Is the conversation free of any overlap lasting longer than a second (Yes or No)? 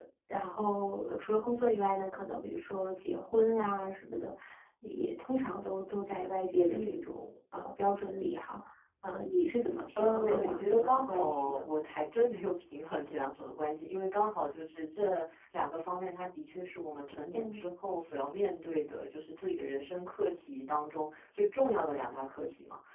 No